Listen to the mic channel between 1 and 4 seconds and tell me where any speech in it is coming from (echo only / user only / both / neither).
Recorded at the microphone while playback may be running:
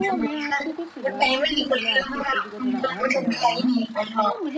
both